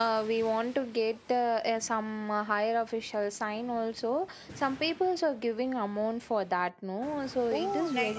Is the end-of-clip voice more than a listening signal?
Yes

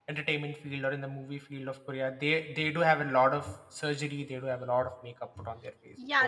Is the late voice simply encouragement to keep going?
No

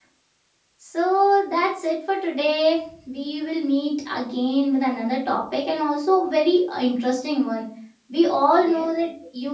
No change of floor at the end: Yes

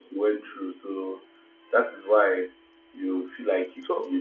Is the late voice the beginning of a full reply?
No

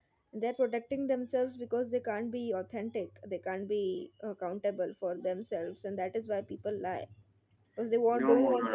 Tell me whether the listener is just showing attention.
No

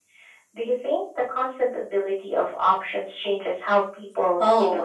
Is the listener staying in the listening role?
No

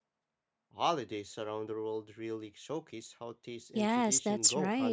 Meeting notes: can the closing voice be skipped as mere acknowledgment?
No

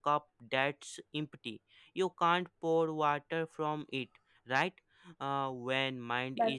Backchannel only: Yes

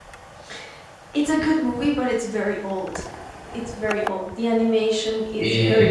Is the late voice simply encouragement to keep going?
No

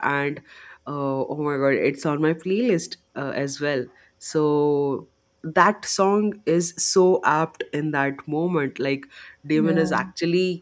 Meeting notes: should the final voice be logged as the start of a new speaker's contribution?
No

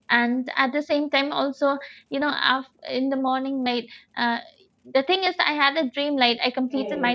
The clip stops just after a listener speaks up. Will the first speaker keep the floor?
Yes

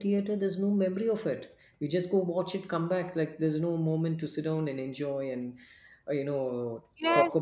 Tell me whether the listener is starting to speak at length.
Yes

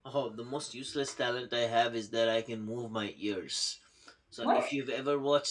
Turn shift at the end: No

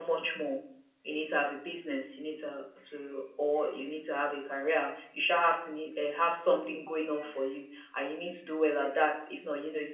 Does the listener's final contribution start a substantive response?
No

